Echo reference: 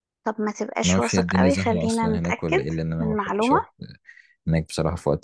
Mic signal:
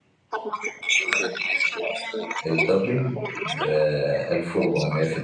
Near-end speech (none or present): present